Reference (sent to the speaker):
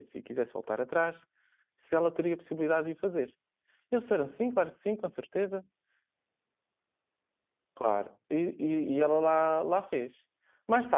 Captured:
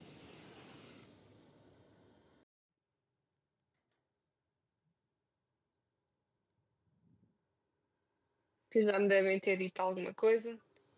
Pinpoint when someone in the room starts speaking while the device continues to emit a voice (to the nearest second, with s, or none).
9 s